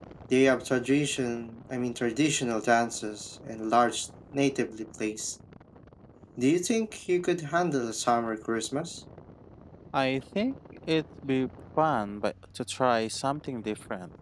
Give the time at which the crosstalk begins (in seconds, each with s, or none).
none